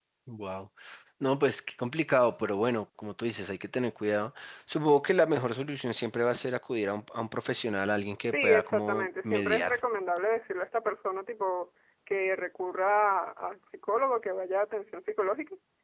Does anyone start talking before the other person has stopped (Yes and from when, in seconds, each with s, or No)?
Yes, from 8.2 s